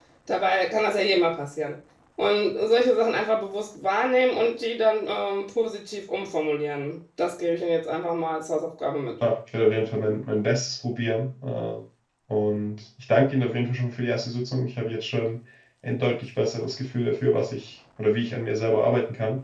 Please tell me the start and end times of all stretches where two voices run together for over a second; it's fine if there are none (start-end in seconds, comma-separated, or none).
none